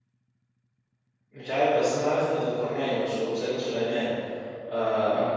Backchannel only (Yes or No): Yes